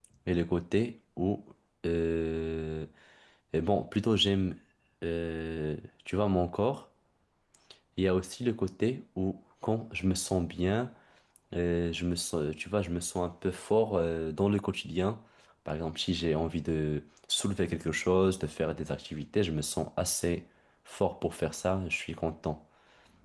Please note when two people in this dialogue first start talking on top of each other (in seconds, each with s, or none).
none